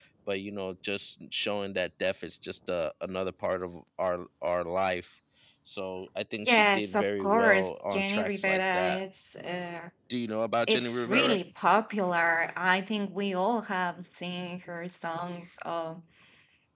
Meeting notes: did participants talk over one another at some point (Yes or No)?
Yes